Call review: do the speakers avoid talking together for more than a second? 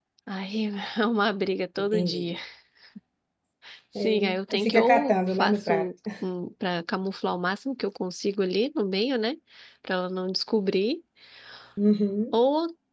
No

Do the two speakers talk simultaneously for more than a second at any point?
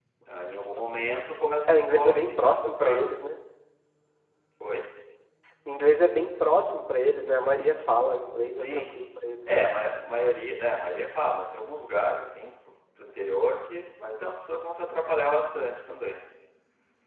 Yes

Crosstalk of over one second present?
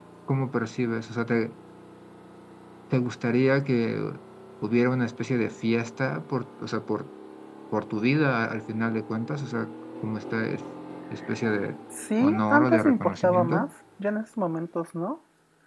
Yes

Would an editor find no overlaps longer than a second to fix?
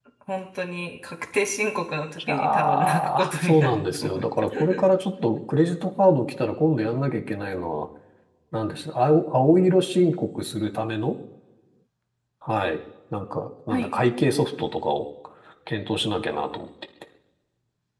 No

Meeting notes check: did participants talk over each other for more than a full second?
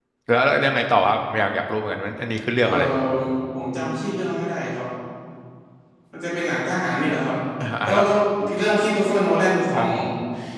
No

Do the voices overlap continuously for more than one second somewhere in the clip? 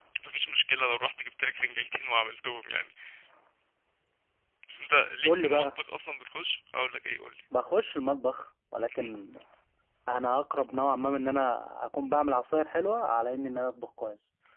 No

